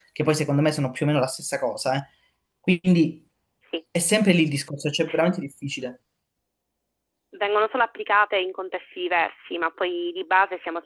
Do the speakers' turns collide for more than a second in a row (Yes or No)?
No